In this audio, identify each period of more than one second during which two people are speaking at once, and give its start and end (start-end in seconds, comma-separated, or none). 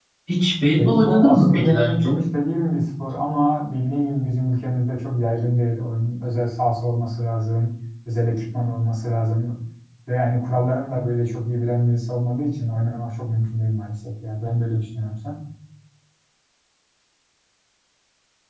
0.8-2.1